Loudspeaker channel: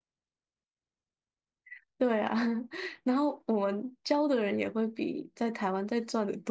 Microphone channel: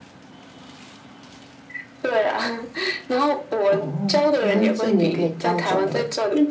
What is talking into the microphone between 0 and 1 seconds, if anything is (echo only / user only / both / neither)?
neither